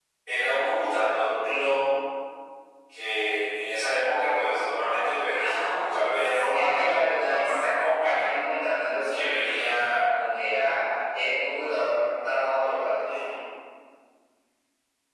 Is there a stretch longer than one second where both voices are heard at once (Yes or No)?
Yes